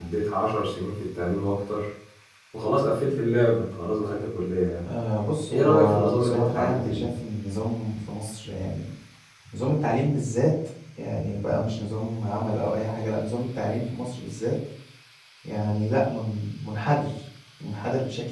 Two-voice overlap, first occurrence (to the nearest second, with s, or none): 6 s